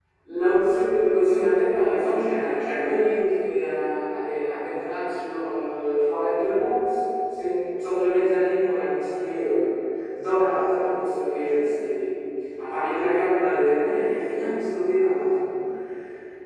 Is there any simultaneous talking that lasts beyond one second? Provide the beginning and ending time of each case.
none

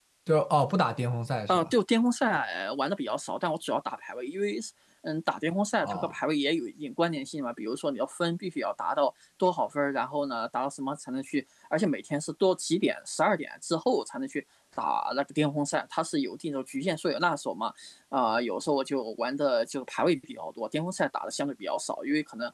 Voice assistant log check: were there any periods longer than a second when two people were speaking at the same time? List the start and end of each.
none

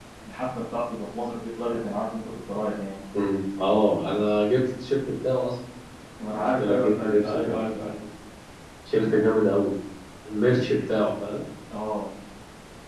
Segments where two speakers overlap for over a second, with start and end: 6.3-7.6

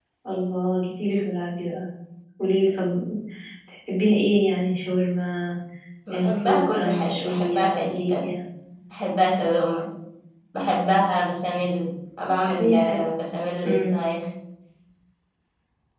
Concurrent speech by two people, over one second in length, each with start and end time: 6.1-8.3

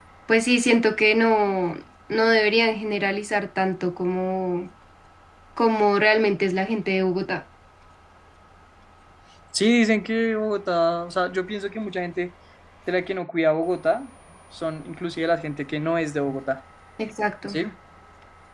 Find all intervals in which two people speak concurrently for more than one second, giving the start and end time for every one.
none

